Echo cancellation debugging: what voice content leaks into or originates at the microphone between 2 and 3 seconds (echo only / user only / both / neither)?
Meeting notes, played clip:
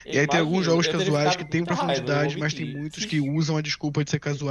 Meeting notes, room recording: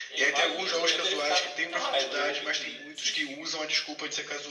echo only